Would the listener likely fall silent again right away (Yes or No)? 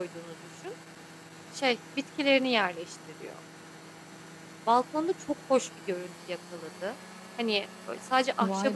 Yes